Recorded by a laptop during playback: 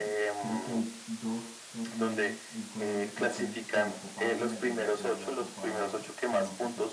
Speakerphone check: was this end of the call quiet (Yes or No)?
No